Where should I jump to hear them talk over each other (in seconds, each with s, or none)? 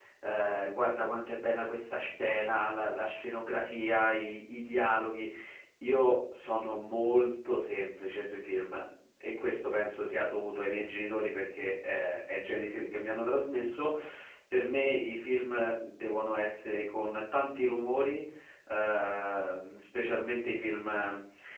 none